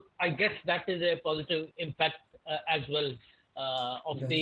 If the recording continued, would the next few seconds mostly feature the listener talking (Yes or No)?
No